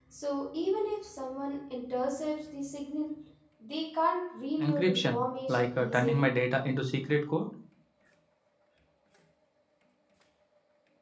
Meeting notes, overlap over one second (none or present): present